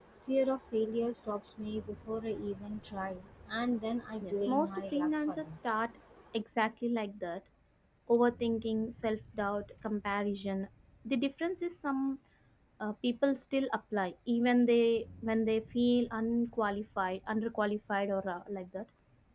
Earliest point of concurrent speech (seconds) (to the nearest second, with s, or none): 4 s